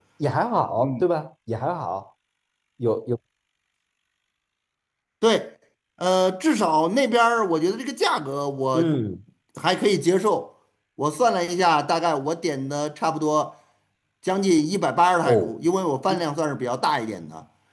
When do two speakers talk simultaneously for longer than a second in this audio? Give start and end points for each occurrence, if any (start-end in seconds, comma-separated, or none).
none